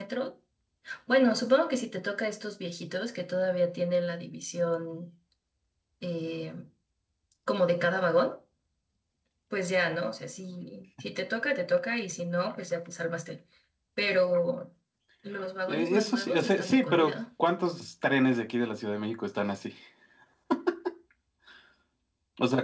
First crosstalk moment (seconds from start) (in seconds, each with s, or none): 15.7 s